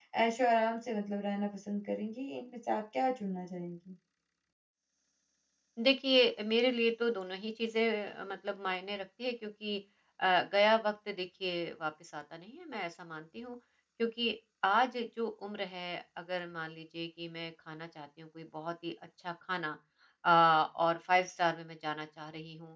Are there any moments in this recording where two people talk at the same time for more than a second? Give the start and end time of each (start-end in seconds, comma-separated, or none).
none